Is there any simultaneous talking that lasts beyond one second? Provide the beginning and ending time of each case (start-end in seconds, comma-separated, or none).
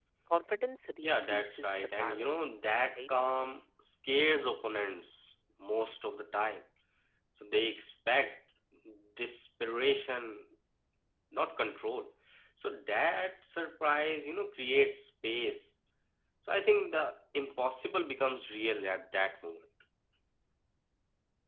1.0-2.3